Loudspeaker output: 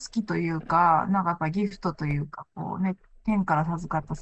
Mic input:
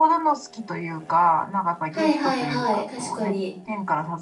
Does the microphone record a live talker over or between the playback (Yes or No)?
Yes